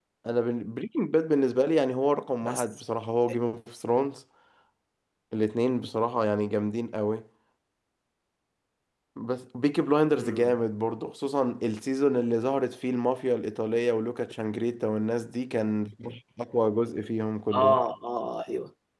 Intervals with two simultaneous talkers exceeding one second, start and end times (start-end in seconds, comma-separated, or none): none